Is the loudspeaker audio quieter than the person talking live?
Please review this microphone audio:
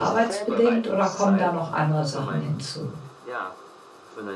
Yes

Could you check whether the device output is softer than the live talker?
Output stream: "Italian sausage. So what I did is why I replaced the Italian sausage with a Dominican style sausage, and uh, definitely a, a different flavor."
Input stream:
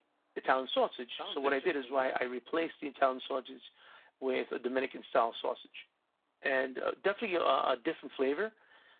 No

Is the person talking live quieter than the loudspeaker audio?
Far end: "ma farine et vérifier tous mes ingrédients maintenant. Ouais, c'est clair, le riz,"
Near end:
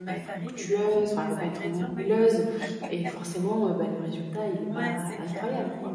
No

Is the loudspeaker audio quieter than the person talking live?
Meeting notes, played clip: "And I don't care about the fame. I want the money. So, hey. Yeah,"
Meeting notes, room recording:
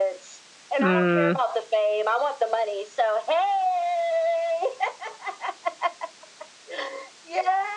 Yes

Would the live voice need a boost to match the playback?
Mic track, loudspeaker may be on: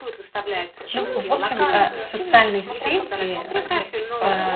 No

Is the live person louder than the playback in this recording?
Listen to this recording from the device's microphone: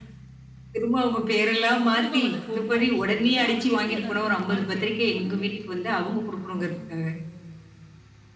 No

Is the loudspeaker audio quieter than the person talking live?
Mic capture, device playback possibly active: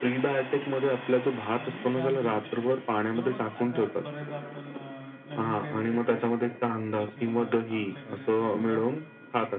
No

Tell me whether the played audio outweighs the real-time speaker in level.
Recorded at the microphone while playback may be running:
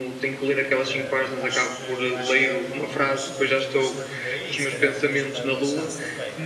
Yes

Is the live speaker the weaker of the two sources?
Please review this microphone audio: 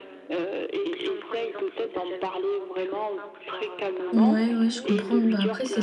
No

